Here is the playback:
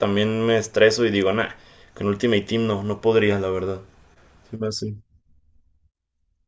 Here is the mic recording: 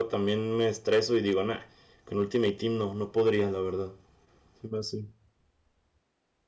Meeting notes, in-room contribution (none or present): none